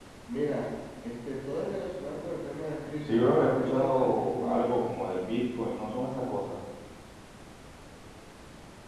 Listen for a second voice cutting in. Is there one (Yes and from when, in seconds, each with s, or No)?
Yes, from 3.0 s